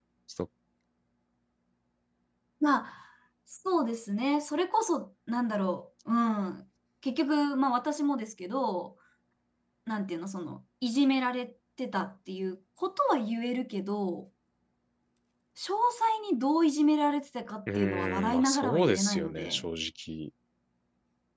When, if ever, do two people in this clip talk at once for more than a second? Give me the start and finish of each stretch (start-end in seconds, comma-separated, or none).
17.8-19.6